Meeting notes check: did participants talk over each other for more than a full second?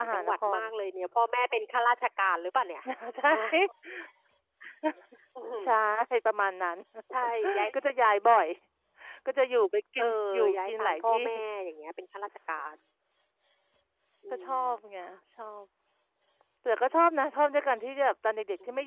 Yes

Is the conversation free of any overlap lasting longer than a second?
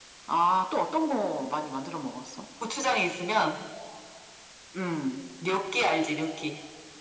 Yes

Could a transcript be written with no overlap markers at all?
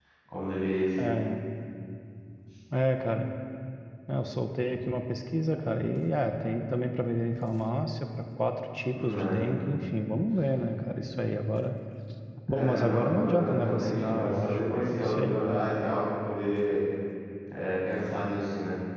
No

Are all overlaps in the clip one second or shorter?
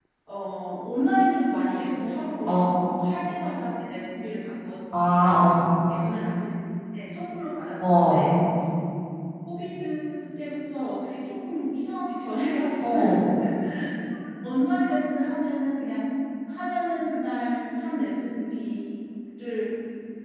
Yes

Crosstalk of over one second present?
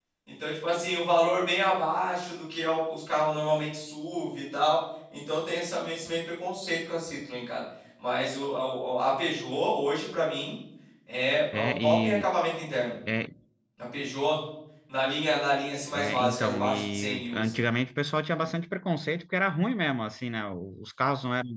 Yes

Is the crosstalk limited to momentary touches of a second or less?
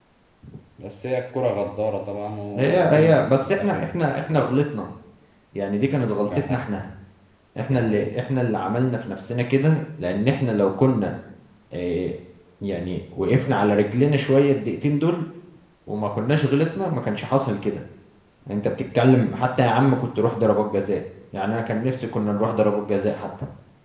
No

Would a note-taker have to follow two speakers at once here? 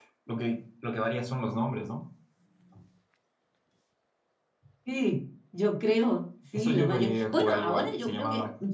Yes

